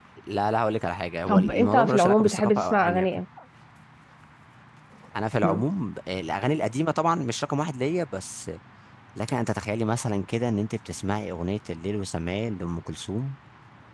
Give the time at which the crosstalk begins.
1.3 s

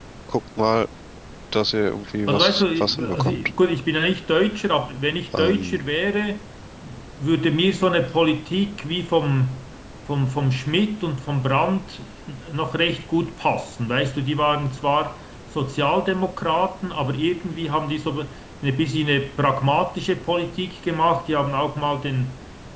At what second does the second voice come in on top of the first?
2.3 s

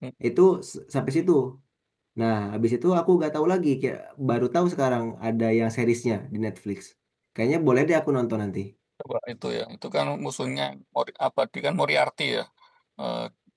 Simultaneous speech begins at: none

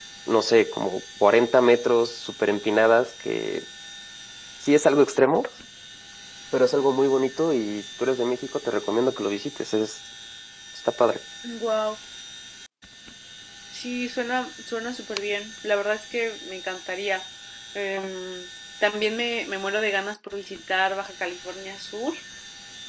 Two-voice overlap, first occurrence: none

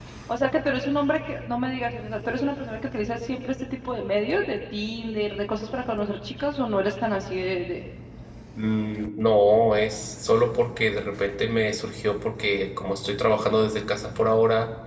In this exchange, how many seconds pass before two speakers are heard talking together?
none

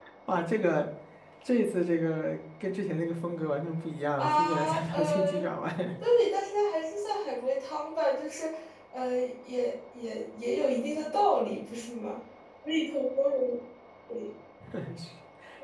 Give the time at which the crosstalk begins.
4.2 s

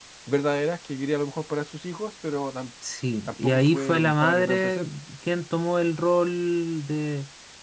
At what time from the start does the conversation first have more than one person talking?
3.4 s

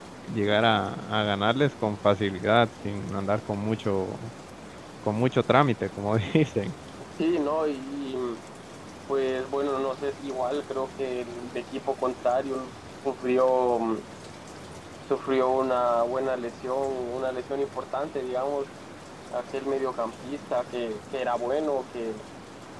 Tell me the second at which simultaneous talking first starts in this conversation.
none

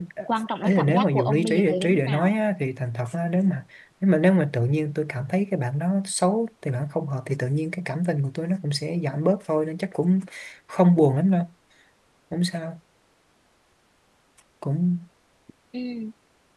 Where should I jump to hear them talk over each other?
0.6 s

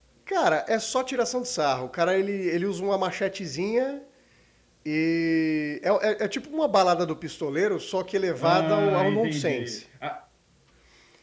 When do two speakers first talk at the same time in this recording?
8.4 s

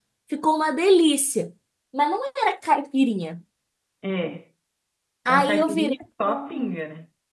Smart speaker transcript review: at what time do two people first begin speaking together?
5.2 s

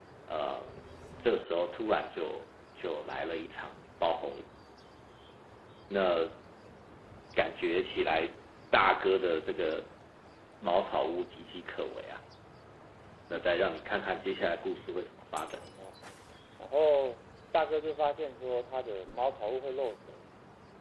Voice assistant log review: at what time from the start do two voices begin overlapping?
none

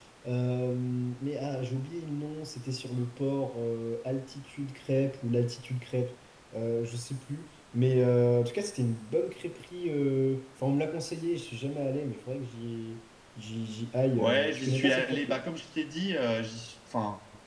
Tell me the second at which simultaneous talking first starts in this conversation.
14.2 s

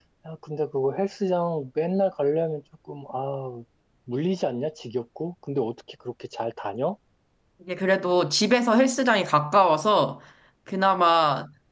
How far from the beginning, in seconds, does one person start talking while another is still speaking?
none

